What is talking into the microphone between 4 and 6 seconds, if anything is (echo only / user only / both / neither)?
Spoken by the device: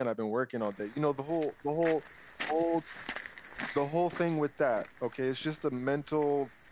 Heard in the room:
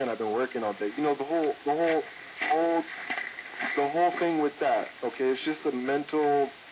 echo only